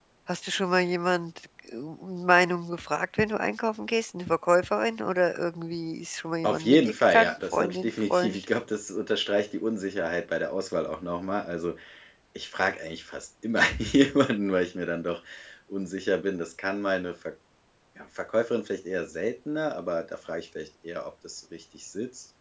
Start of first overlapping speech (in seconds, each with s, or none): 6.4 s